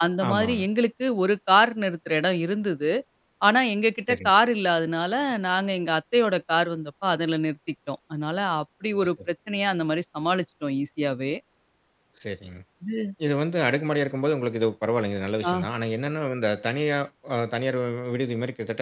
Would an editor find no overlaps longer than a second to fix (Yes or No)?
Yes